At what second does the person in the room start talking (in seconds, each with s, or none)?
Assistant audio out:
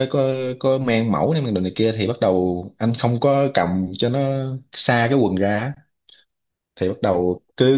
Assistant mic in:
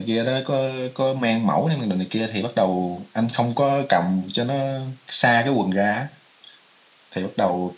none